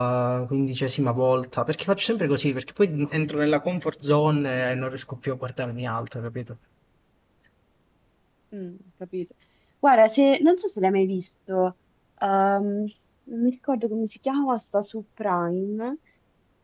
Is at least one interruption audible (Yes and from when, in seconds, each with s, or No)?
No